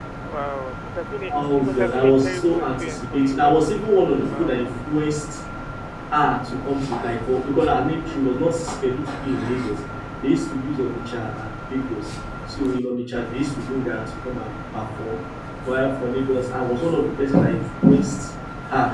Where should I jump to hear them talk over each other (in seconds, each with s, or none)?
1.3 s